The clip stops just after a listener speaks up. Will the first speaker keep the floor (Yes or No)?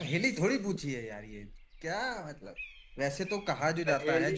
Yes